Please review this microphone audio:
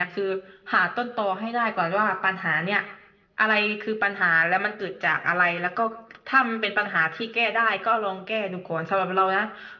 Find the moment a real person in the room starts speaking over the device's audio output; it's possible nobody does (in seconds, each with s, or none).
none